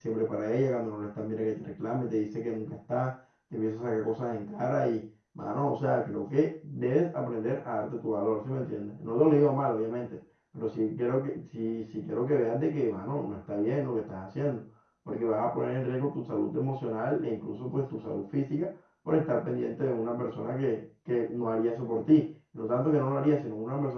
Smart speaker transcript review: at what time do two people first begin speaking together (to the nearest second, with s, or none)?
none